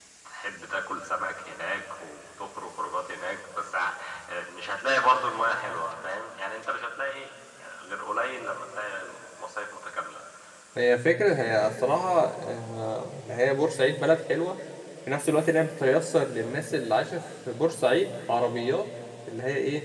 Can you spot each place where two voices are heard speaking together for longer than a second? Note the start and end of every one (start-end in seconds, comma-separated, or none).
none